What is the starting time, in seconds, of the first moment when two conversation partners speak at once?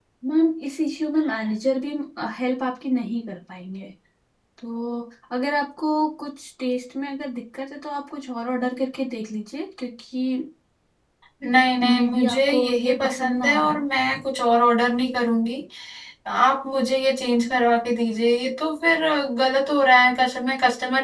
12 s

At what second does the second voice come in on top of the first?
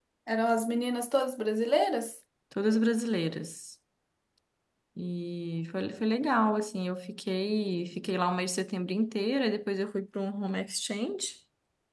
none

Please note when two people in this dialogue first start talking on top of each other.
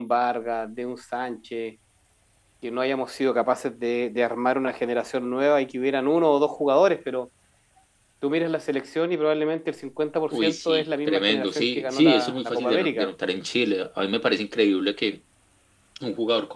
10 s

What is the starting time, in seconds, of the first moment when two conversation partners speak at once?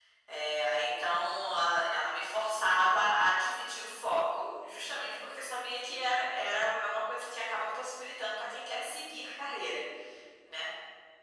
none

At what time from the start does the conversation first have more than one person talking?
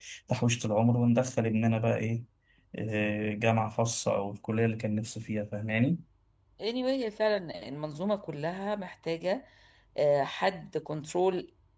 none

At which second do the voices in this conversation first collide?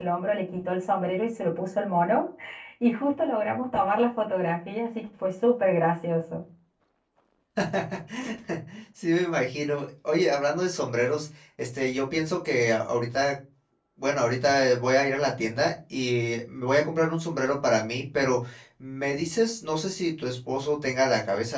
none

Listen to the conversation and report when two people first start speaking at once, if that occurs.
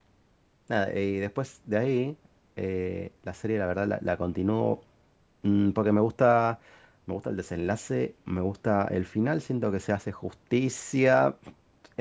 none

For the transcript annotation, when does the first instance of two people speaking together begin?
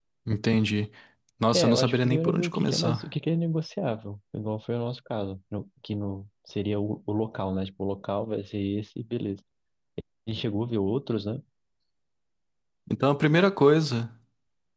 2 s

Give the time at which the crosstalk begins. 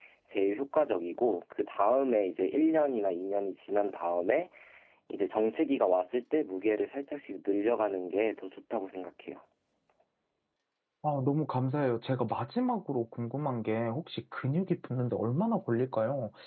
none

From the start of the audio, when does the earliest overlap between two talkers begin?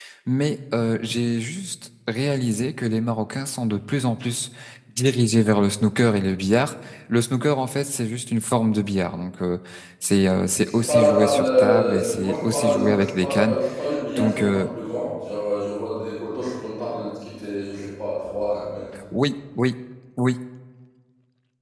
11 s

